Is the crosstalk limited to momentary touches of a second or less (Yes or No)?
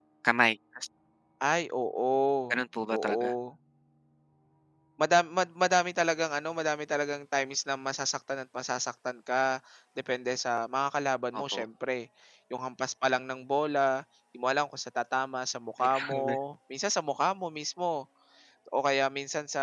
Yes